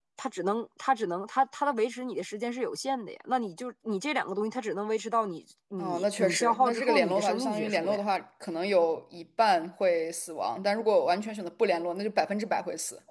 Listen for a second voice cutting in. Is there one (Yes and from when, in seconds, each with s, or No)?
Yes, from 5.8 s